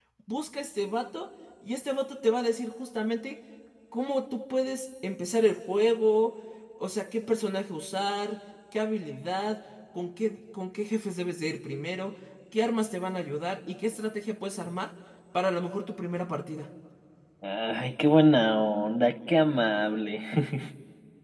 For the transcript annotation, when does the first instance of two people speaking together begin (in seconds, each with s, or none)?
none